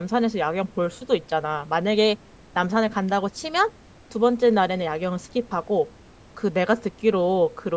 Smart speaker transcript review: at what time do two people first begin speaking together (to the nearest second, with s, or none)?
none